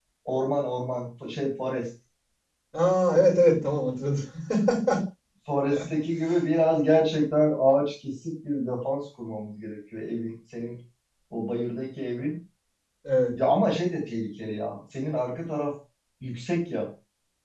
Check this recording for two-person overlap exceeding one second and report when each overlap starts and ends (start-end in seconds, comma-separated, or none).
none